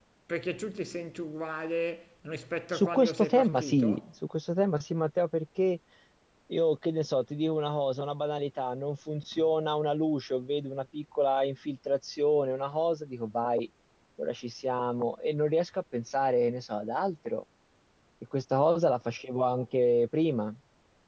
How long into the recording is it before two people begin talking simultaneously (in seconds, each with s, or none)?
2.7 s